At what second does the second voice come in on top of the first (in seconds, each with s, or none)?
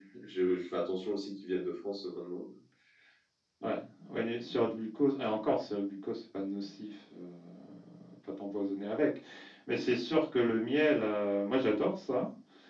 none